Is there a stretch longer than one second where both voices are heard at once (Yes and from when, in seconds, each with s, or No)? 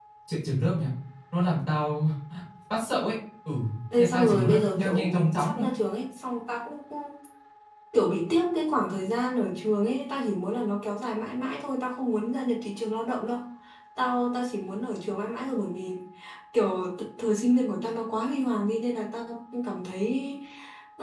Yes, from 4.0 s